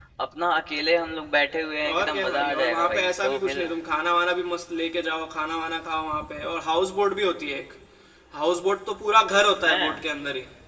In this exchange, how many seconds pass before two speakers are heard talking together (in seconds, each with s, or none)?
1.9 s